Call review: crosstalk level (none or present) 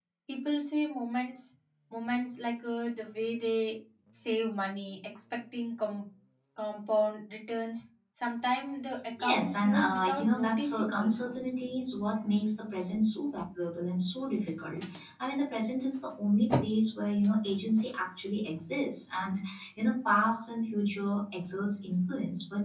present